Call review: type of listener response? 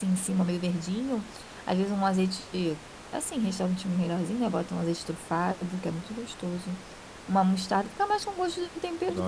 taking over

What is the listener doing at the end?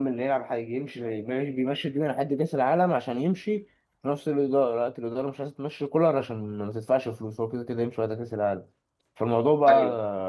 listening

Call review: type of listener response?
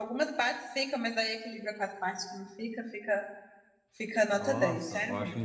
taking over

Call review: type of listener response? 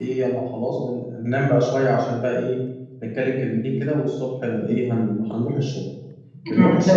listening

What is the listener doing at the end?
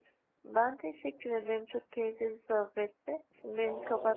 taking over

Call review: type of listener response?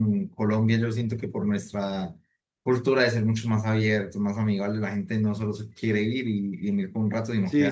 taking over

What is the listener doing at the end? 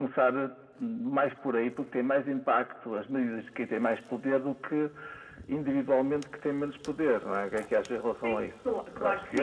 taking over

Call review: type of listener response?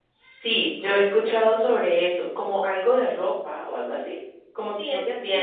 taking over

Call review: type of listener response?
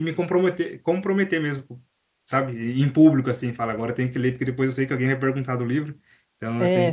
taking over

